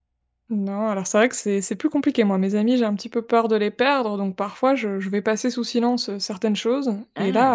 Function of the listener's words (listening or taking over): listening